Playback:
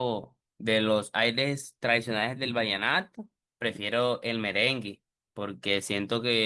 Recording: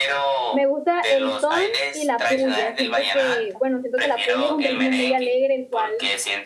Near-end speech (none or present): present